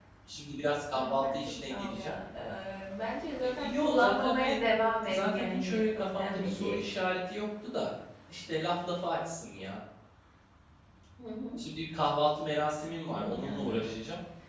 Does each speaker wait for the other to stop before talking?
No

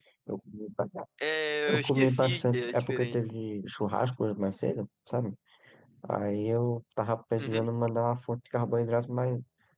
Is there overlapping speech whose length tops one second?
Yes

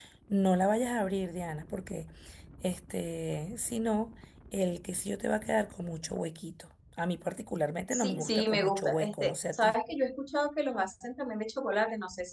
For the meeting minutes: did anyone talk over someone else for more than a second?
Yes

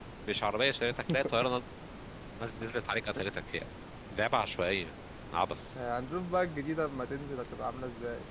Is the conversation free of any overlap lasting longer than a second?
Yes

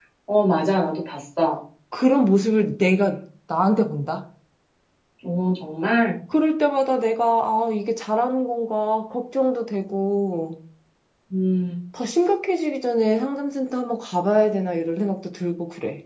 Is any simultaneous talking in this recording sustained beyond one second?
No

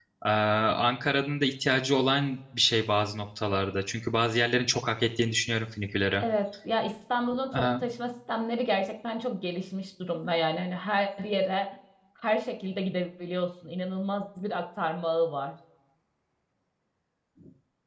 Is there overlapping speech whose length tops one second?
No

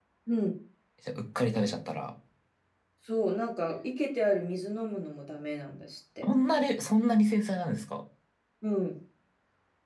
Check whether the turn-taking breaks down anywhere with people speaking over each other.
No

